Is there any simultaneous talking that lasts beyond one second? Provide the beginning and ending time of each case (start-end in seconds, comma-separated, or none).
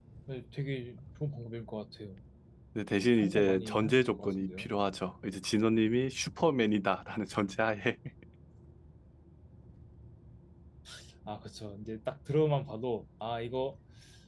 3.2-4.7